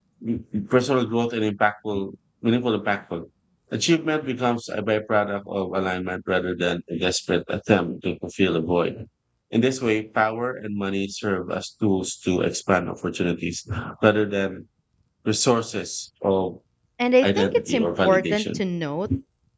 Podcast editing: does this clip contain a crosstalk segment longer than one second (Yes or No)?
Yes